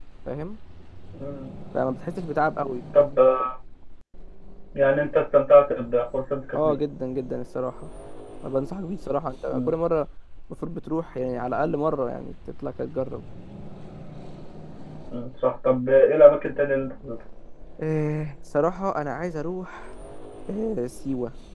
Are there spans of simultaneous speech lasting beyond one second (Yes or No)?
No